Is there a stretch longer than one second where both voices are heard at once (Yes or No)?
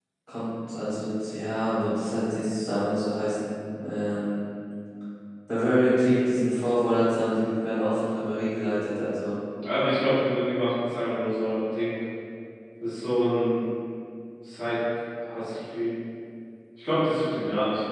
No